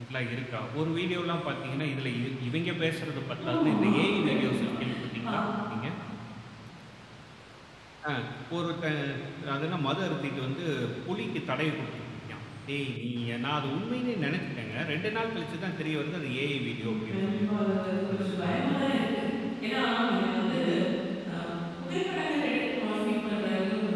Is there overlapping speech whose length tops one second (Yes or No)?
Yes